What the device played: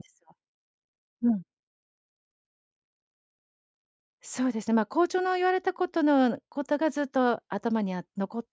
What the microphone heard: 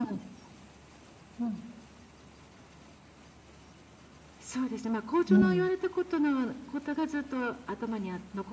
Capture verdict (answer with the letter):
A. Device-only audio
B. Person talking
B